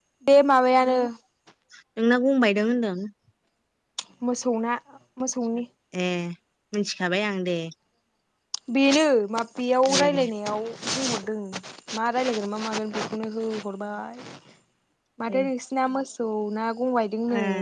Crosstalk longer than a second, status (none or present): none